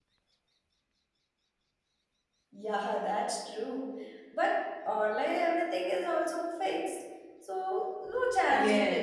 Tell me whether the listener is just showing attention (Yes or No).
No